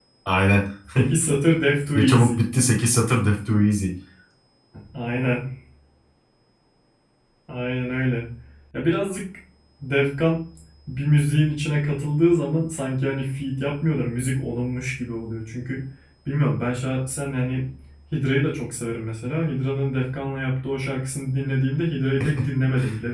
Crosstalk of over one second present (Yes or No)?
No